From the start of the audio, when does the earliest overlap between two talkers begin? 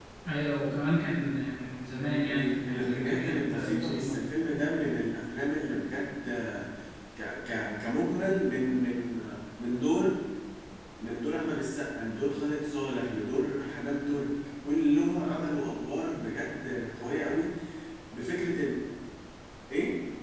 2.2 s

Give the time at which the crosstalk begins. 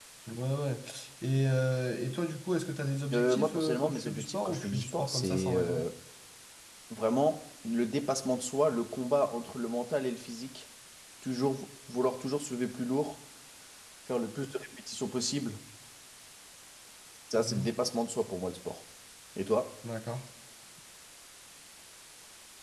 3.1 s

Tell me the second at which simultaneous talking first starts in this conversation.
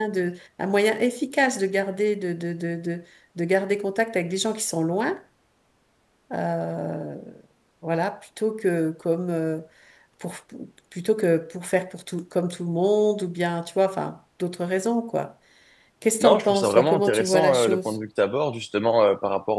16.2 s

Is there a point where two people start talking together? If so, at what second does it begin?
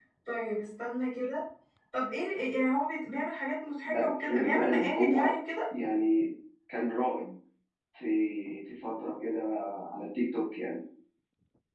3.8 s

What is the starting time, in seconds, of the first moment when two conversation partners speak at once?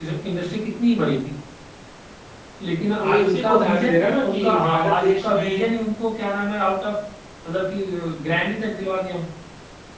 3.0 s

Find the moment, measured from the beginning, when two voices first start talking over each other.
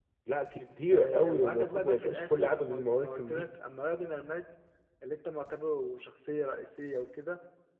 0.9 s

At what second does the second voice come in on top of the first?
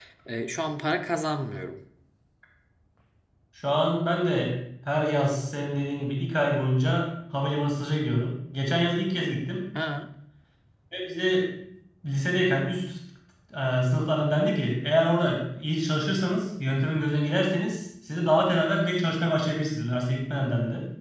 none

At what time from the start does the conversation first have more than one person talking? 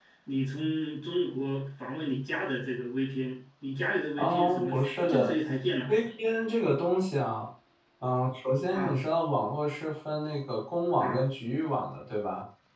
4.2 s

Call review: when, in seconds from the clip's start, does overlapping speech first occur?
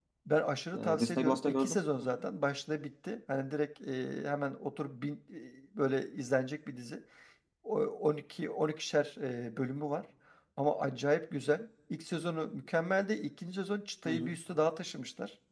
0.7 s

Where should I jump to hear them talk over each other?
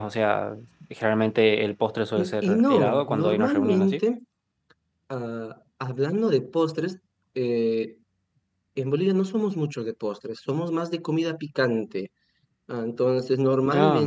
2.2 s

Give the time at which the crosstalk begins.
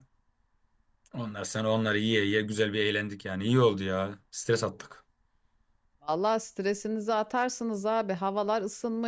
none

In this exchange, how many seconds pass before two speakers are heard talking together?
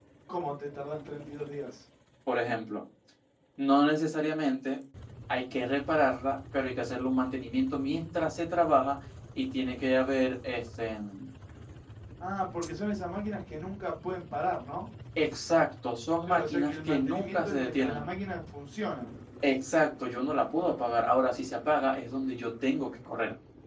16.3 s

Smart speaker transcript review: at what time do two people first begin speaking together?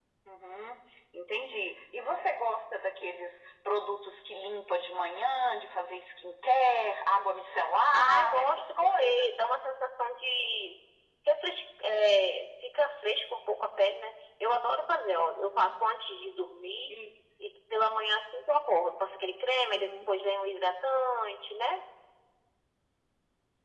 7.9 s

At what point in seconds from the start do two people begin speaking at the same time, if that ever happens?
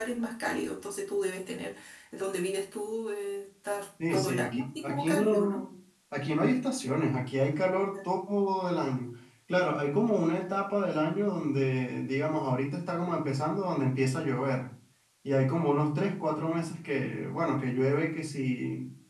4.0 s

